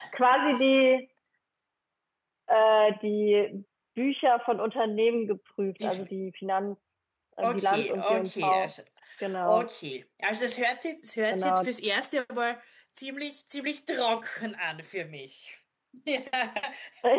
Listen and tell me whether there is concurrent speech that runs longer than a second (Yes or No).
Yes